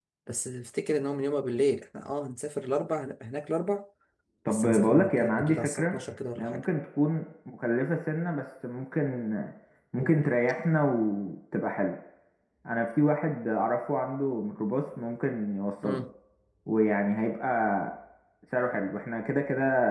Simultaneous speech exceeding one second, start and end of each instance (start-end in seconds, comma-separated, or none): 4.5-6.0